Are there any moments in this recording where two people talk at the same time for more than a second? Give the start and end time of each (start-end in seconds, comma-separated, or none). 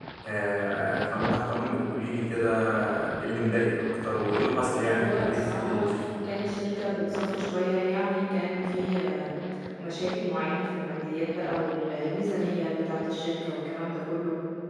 4.3-5.8